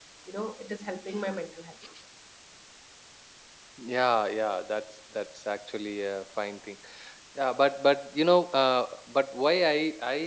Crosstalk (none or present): none